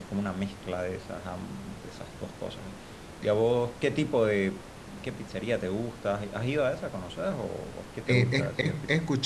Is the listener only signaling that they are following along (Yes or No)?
No